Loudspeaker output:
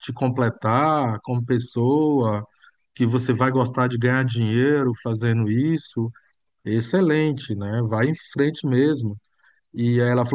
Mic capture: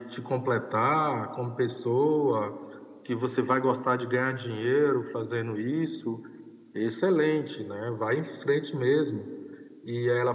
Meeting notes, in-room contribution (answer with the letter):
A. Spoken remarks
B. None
B